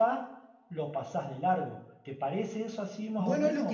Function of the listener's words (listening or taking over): taking over